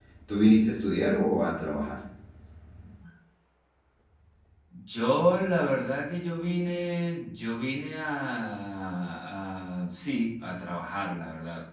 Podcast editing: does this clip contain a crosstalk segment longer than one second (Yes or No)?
No